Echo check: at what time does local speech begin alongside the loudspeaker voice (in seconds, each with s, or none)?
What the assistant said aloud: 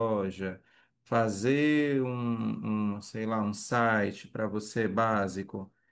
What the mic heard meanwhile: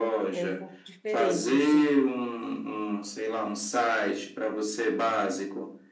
0.3 s